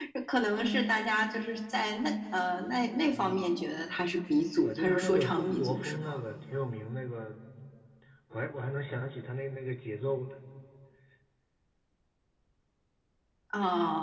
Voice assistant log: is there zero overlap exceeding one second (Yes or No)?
No